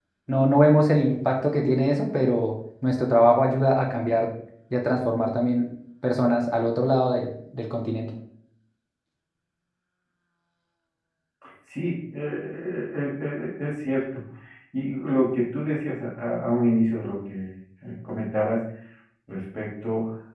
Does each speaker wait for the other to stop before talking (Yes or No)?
Yes